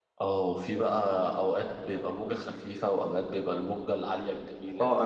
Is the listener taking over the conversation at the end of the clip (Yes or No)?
Yes